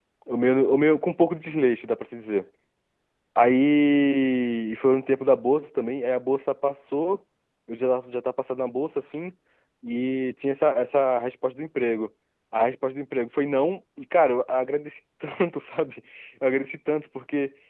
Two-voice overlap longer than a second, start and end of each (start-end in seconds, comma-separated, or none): none